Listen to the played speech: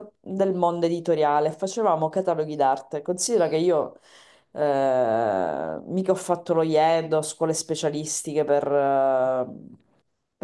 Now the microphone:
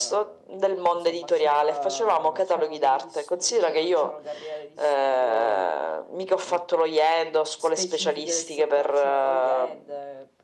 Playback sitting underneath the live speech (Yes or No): No